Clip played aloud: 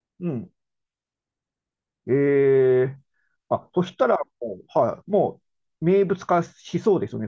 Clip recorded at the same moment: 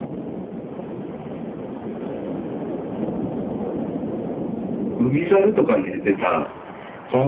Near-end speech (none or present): present